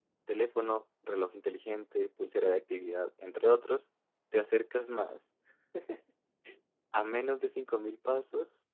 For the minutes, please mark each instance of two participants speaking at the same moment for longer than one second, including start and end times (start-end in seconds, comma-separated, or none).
none